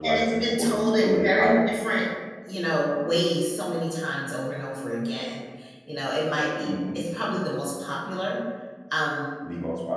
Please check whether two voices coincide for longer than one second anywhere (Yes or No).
Yes